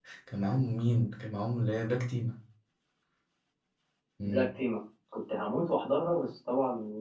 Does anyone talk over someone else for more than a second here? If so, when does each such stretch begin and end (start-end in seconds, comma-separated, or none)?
none